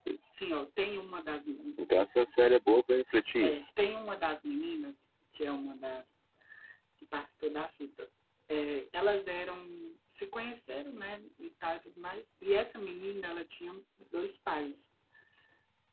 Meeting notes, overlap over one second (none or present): none